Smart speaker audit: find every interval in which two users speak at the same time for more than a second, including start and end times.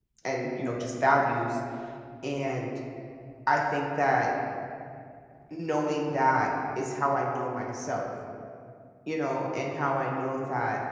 none

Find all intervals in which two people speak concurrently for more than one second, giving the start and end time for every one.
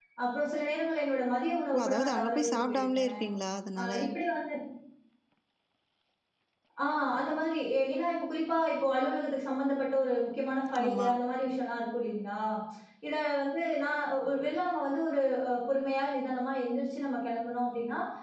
1.7-3.2

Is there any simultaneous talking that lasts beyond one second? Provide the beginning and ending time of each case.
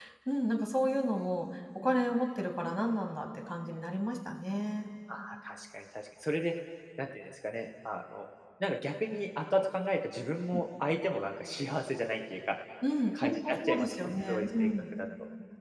13.1-14.9

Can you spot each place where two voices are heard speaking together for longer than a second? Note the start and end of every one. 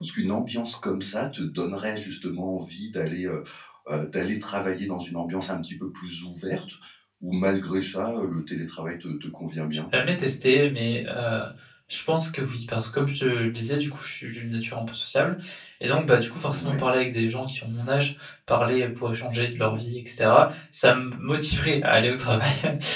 none

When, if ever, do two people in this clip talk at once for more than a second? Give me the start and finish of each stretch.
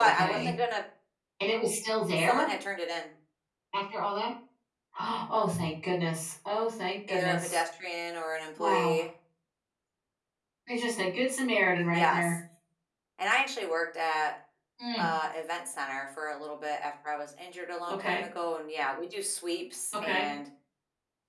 none

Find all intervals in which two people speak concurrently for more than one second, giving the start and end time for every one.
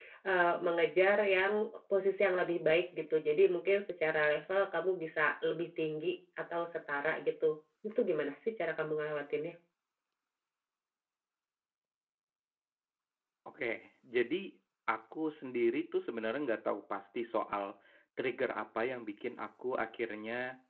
none

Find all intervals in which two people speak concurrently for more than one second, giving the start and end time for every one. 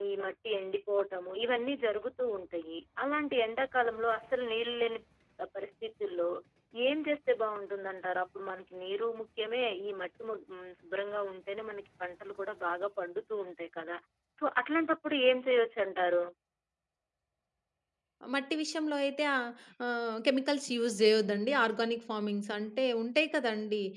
none

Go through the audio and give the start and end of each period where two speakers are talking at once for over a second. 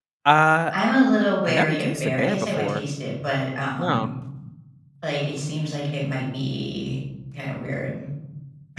1.5-2.8

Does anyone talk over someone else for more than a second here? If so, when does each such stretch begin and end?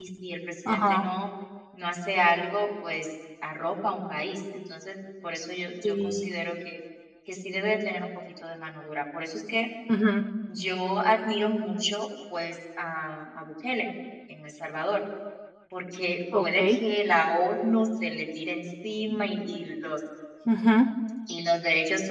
none

